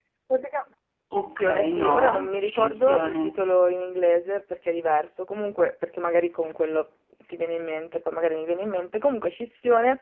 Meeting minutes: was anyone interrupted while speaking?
Yes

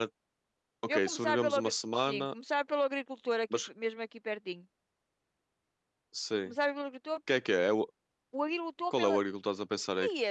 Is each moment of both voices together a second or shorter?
No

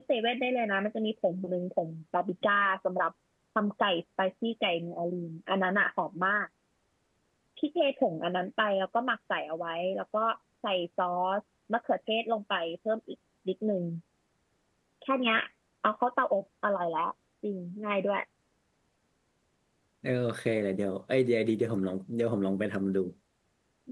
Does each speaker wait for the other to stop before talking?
Yes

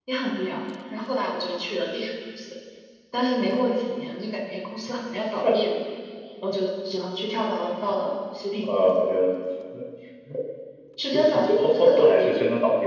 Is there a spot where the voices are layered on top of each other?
Yes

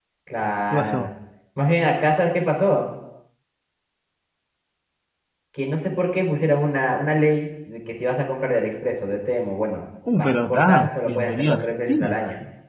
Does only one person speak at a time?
No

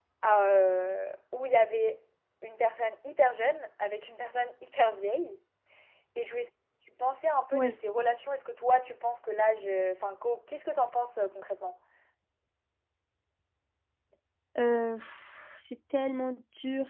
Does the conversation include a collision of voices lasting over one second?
No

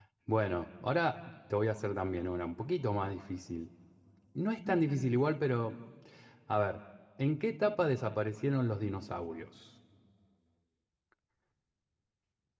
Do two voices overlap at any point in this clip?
No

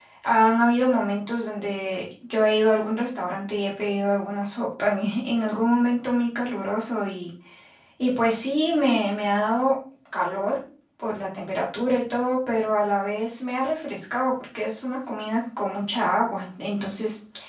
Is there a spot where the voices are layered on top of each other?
No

